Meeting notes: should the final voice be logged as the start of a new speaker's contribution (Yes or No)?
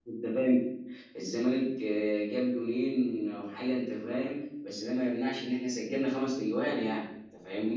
Yes